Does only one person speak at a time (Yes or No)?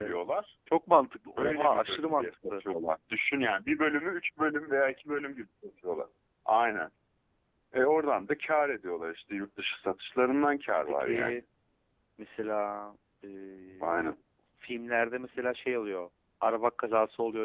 No